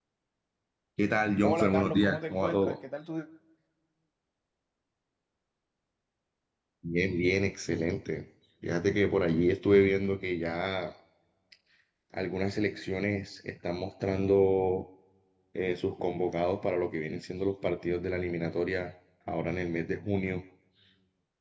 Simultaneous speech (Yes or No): Yes